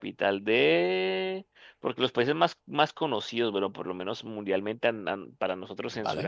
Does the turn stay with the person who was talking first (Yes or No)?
Yes